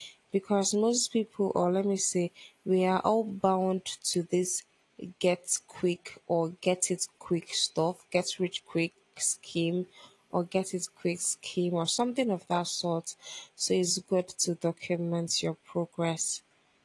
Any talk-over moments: No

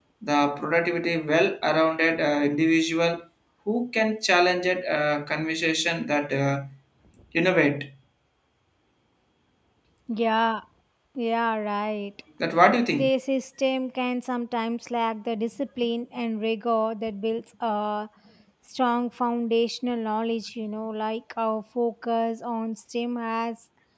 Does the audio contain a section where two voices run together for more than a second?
No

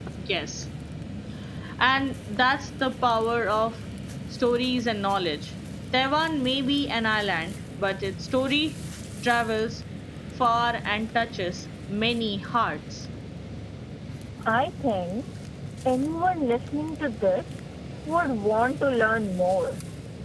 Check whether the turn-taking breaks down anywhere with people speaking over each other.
No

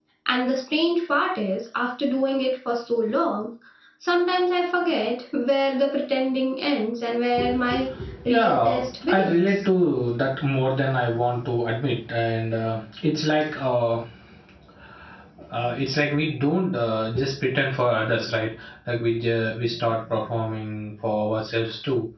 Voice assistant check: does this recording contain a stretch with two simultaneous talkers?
Yes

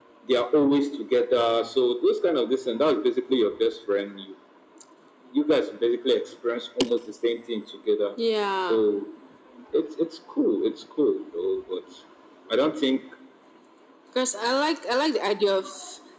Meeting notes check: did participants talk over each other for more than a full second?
No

